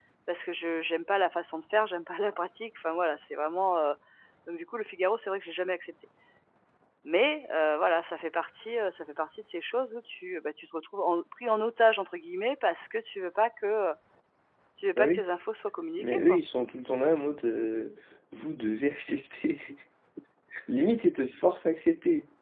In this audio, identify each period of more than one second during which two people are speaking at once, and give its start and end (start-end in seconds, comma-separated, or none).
none